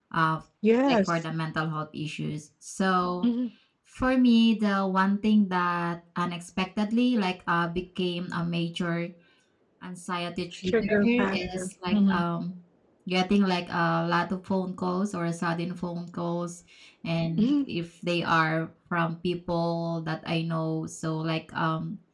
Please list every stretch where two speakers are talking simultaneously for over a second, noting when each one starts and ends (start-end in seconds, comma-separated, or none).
10.6-12.2